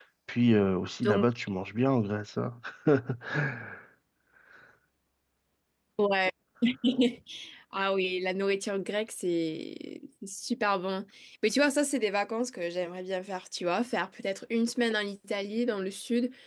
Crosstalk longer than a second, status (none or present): none